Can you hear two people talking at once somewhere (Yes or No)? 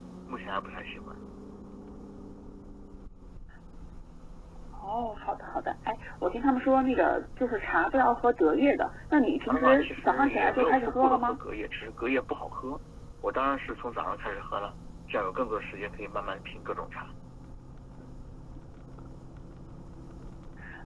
Yes